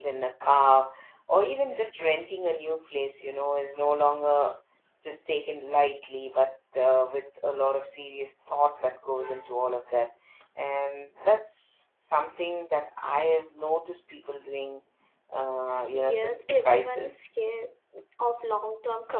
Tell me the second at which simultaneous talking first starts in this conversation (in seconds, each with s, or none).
15.9 s